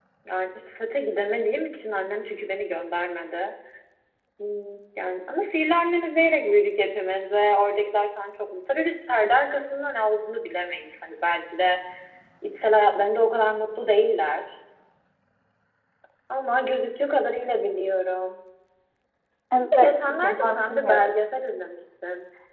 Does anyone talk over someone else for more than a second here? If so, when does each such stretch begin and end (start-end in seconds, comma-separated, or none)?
19.6-21.1